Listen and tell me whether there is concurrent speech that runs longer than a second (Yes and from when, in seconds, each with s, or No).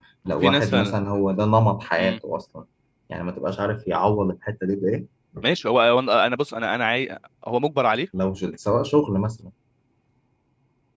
No